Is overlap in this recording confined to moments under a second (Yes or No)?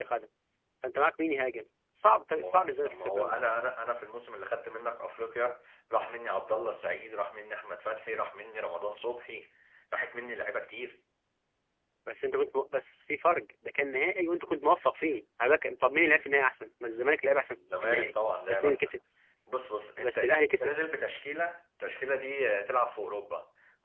No